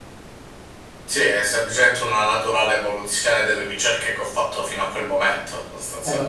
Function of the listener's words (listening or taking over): taking over